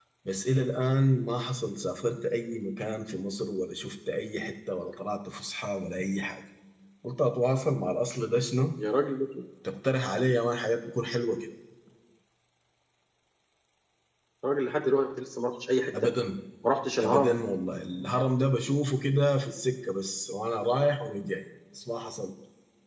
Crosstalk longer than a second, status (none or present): none